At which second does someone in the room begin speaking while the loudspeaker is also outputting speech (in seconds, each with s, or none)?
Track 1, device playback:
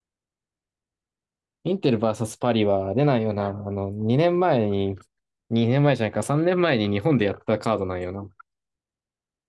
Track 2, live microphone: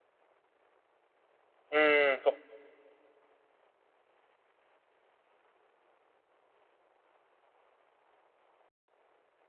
1.7 s